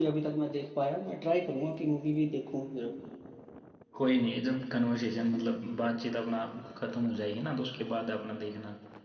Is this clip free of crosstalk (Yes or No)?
Yes